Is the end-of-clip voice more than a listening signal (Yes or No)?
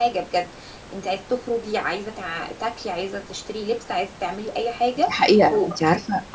Yes